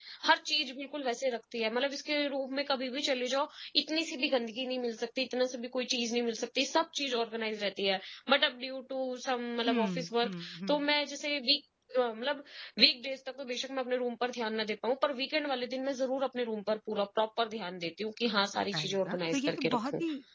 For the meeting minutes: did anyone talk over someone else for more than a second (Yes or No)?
Yes